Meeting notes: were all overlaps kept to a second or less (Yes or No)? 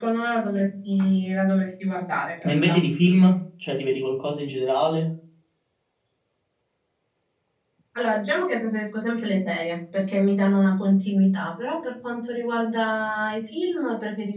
Yes